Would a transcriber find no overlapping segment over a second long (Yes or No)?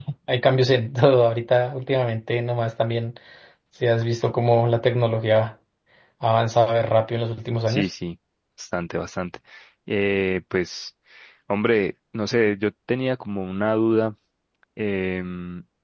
Yes